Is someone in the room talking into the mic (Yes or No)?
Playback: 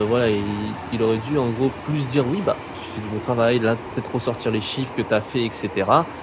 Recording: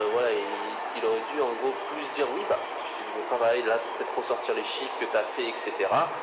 No